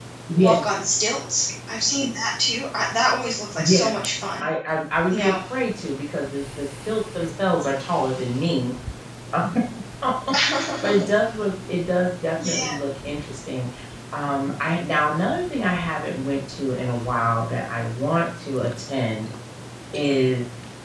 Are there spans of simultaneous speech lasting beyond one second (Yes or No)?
No